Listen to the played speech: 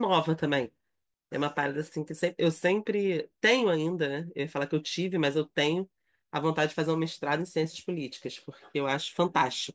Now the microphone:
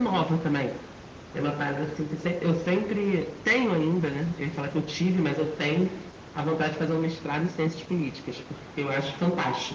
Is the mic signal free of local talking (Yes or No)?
Yes